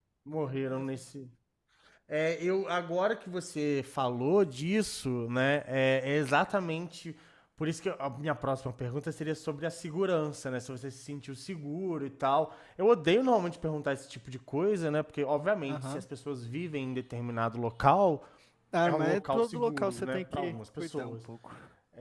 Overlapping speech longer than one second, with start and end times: 18.9-21.1

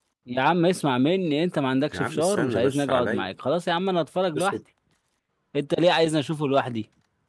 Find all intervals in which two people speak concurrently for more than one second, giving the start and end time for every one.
1.9-3.3

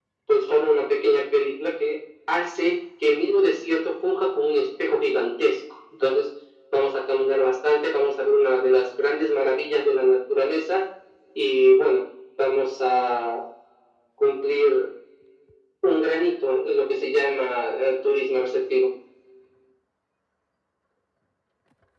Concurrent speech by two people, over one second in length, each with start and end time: none

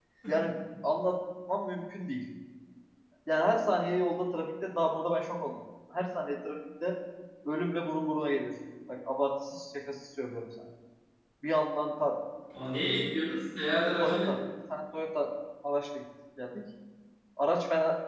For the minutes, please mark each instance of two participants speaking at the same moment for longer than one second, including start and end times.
none

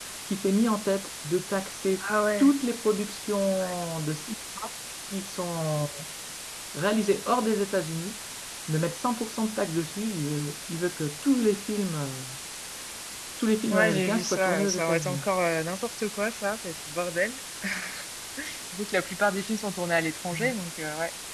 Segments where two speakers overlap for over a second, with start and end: 13.7-15.2

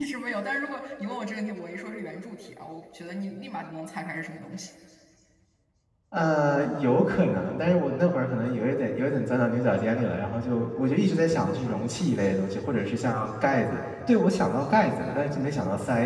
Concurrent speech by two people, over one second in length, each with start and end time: none

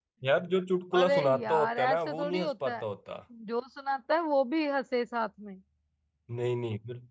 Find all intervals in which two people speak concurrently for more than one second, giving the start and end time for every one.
1.0-2.8

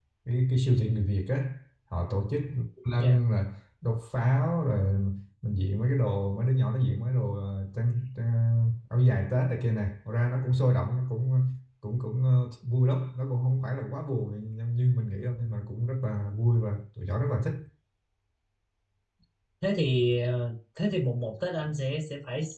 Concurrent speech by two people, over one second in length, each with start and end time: none

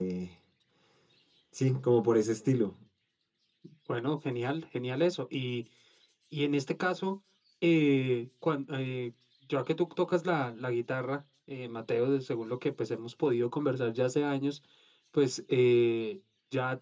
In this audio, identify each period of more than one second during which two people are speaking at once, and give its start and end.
none

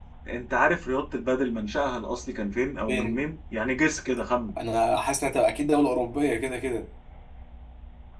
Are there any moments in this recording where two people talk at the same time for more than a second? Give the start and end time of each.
none

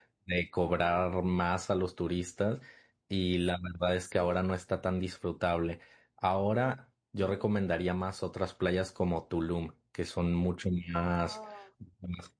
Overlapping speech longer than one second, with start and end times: none

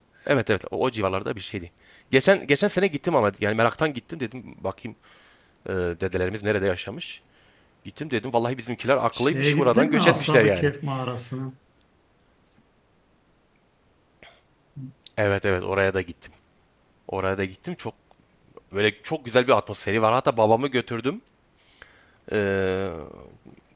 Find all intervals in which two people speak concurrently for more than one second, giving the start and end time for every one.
9.1-10.7

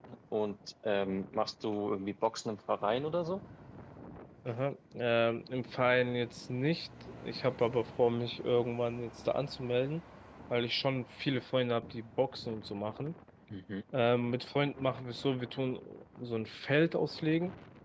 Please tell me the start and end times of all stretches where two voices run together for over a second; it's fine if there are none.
none

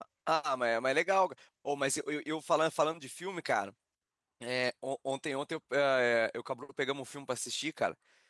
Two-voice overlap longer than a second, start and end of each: none

